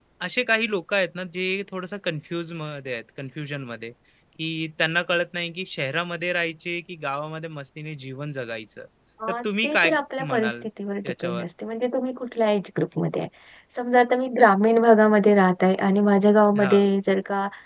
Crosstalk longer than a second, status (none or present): present